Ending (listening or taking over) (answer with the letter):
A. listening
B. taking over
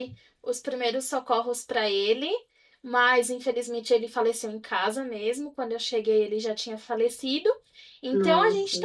A